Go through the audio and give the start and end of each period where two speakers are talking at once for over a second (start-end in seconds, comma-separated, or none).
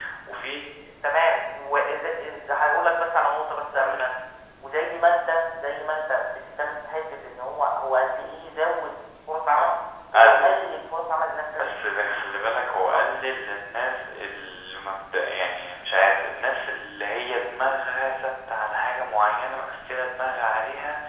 none